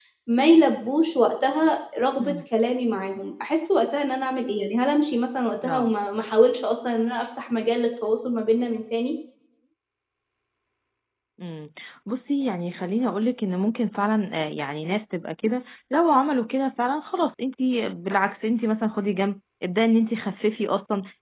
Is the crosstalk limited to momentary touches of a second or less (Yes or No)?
Yes